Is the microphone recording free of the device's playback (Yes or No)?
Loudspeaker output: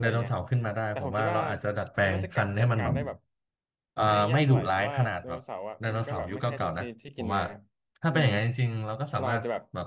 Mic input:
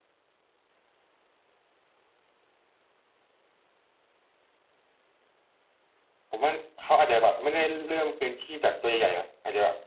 Yes